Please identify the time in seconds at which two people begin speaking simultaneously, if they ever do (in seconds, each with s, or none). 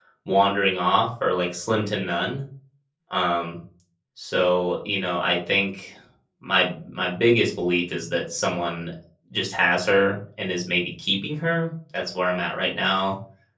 none